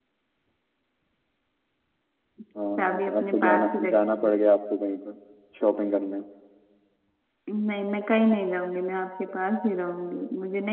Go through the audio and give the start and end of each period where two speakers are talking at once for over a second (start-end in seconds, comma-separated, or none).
2.8-4.3